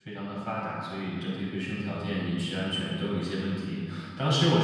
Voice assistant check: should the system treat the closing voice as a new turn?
No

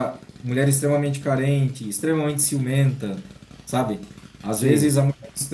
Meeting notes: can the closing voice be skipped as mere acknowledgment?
Yes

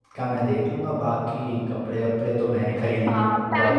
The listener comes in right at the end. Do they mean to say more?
Yes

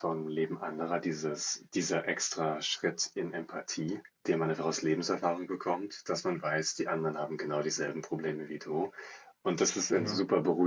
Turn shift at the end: No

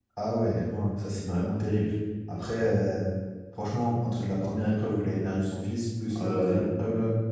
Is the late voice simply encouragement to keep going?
Yes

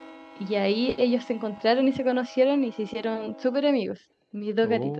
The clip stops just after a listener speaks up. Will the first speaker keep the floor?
Yes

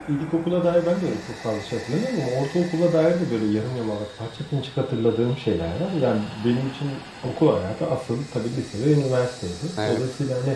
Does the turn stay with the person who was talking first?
Yes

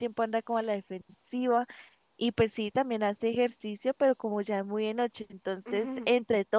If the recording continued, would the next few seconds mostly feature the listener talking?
No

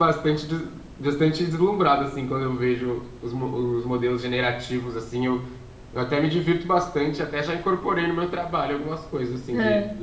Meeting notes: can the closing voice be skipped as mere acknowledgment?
Yes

